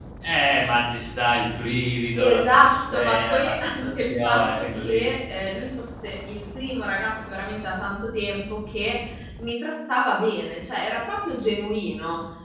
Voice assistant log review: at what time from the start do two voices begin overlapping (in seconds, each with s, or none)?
2.2 s